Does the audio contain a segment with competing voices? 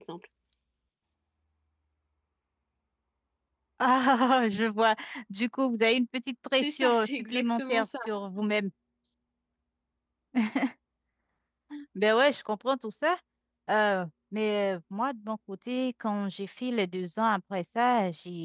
Yes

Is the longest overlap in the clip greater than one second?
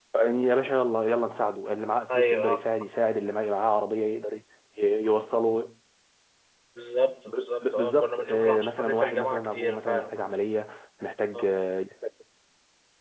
Yes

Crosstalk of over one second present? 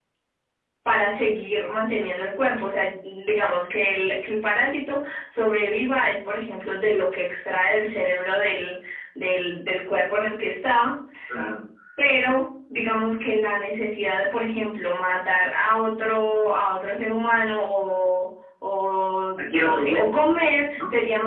Yes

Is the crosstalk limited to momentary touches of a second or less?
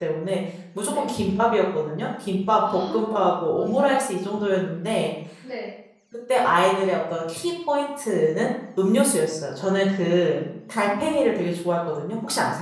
No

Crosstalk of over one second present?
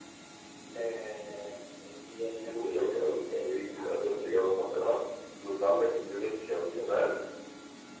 Yes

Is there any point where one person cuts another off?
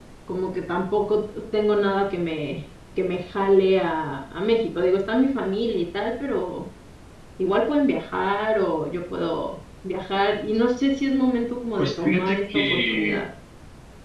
Yes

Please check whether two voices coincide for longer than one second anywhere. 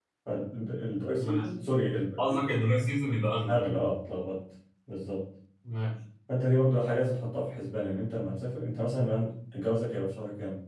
No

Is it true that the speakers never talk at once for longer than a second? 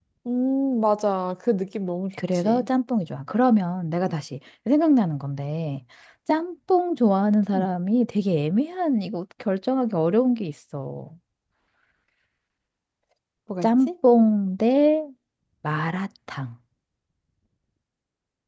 Yes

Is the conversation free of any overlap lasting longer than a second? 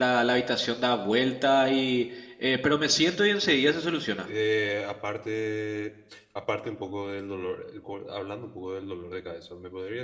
Yes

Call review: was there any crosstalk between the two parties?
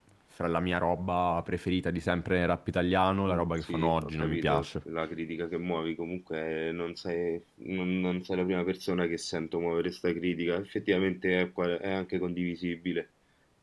Yes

